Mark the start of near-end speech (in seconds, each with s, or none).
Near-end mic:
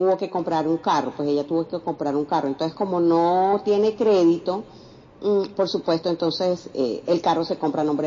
none